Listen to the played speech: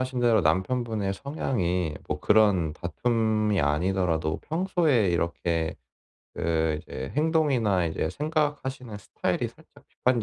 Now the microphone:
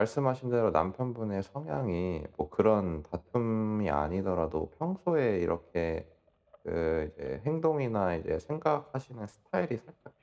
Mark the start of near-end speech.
none

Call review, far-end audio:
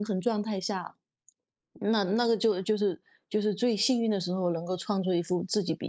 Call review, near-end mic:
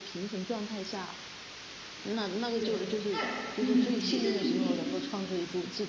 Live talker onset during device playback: 2.5 s

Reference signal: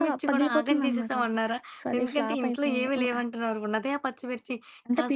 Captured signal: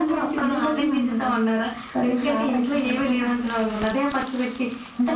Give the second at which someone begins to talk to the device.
none

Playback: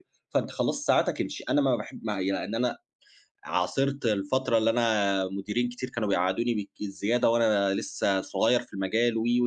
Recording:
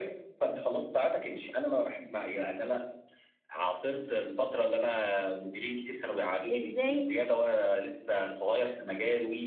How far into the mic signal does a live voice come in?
6.5 s

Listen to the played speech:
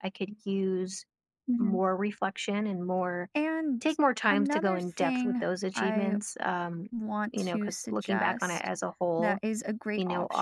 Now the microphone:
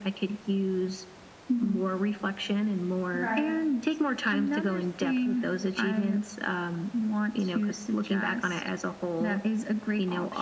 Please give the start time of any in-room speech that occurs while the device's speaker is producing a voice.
3.1 s

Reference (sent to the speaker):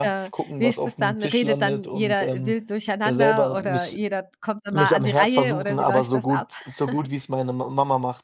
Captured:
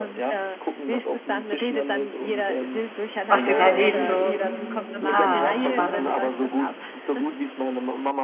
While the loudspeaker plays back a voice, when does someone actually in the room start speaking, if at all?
3.2 s

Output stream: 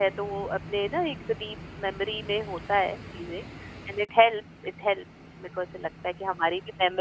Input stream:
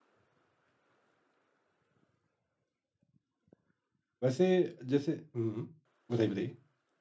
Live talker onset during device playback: 4.2 s

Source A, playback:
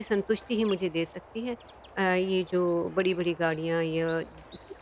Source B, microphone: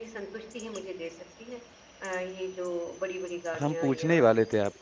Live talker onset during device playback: 3.6 s

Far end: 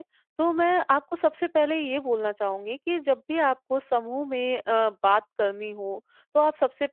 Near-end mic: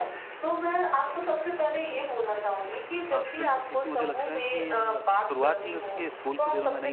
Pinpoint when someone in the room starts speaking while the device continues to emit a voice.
3.1 s

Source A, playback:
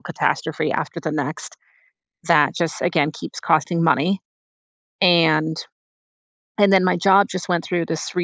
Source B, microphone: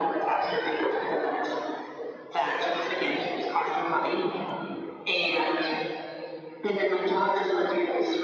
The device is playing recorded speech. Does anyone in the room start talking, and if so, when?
none

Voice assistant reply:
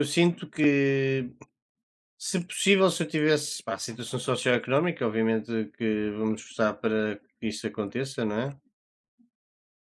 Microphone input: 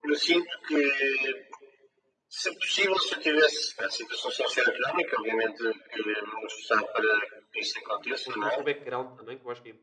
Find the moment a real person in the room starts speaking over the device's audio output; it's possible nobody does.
7.8 s

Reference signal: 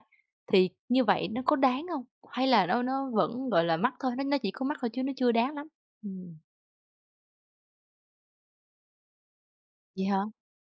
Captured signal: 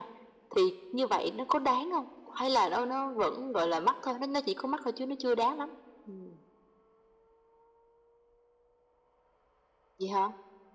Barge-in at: none

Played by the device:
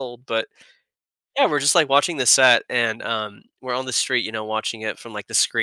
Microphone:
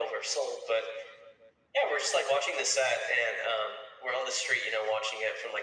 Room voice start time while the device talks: none

